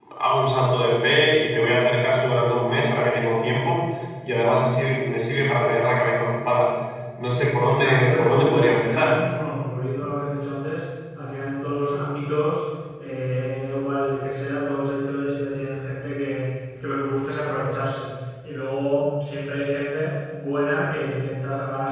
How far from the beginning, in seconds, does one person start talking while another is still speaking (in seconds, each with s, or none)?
7.8 s